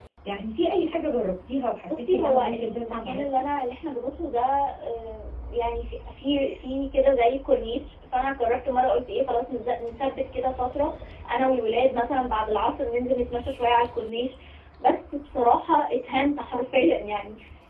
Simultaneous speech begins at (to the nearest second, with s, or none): 2 s